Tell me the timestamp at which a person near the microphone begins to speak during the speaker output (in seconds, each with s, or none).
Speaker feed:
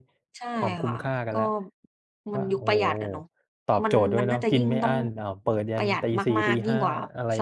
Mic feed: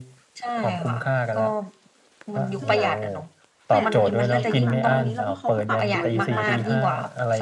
2.6 s